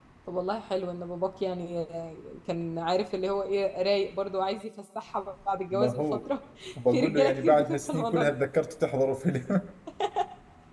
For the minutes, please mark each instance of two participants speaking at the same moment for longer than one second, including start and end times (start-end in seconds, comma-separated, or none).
6.9-8.3